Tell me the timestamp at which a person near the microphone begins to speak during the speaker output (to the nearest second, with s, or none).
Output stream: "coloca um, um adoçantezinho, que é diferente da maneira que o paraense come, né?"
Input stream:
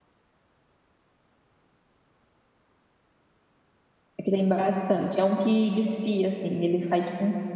4 s